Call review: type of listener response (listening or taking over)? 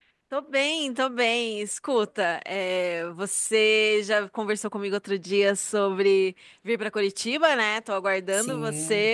listening